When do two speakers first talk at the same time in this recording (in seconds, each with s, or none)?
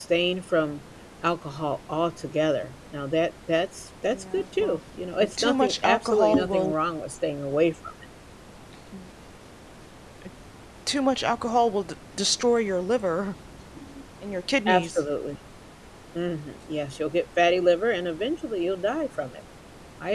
4.1 s